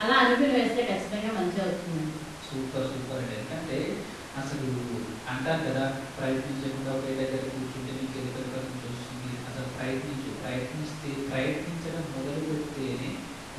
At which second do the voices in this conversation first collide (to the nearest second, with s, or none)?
none